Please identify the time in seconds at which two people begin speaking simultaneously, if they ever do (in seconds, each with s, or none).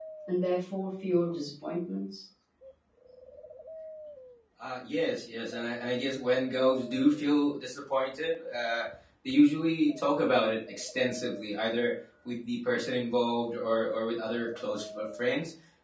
none